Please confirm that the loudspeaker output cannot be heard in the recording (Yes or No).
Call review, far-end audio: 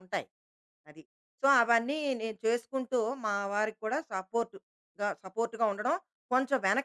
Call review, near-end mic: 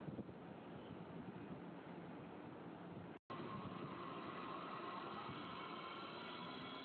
Yes